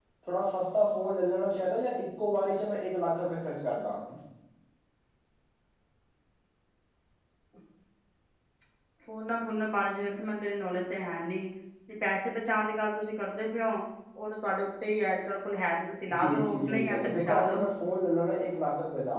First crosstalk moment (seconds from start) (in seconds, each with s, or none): 16.1 s